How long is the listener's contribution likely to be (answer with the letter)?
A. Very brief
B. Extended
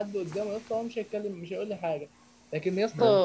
A